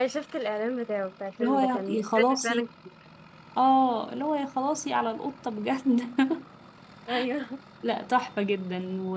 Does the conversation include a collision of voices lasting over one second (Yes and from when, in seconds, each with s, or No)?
Yes, from 1.4 s